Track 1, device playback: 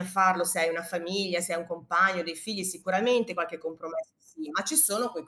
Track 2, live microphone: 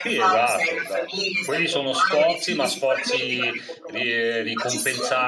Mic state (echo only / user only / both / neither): both